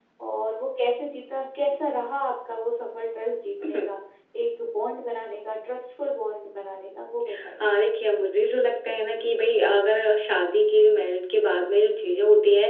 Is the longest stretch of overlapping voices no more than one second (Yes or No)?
Yes